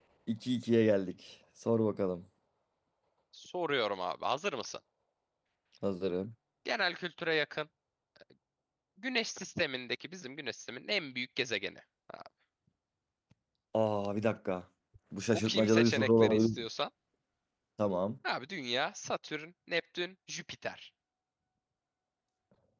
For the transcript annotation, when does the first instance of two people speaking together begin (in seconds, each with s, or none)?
15.3 s